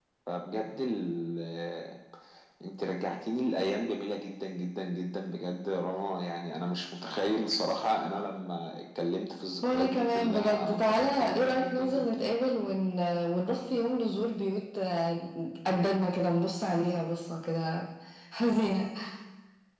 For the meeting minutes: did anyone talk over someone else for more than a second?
Yes, from 9.6 s

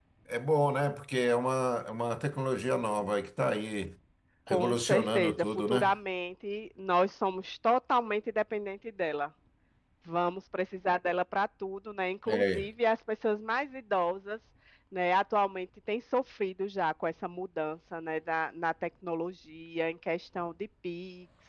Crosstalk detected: Yes, from 4.5 s

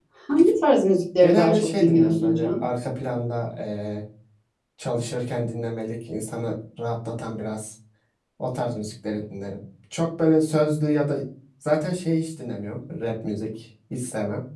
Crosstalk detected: Yes, from 1.2 s

